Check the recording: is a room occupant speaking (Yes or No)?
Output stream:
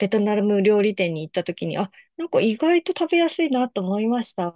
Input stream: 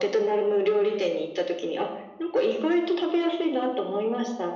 No